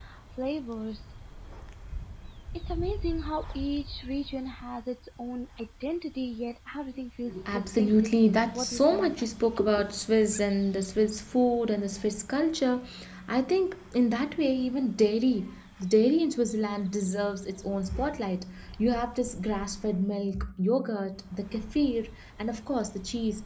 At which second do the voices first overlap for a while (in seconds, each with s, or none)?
7.5 s